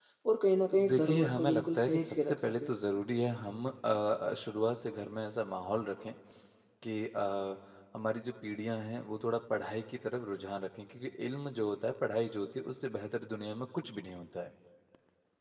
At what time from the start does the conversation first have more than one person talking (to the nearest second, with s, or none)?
1 s